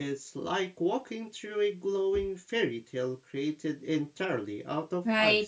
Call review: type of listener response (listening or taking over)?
taking over